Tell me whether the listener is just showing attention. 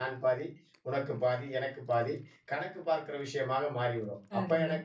Yes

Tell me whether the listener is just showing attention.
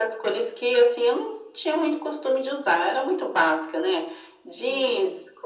Yes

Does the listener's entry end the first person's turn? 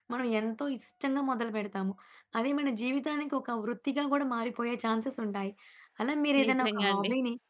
No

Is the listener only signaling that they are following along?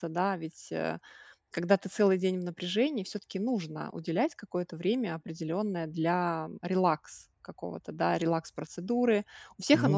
Yes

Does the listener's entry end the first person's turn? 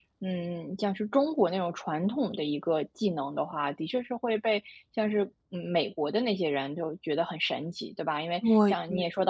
No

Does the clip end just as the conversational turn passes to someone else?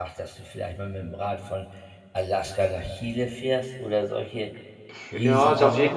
Yes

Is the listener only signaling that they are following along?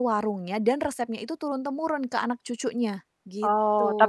No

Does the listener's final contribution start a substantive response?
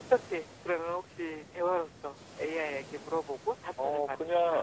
Yes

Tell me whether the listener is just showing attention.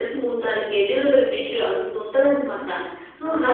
Yes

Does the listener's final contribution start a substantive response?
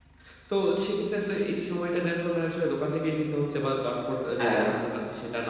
No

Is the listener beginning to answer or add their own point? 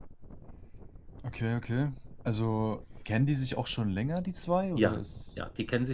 Yes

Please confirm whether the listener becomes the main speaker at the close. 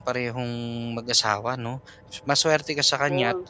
No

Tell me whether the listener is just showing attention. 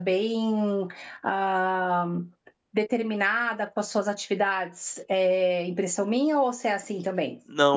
No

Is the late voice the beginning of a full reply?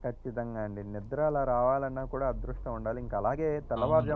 No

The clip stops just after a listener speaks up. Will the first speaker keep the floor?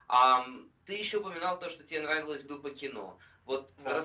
Yes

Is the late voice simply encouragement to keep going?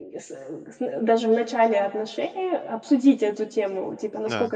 Yes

